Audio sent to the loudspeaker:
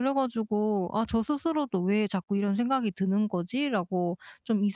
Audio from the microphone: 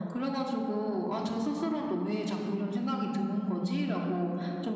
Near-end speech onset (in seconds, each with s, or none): 3.6 s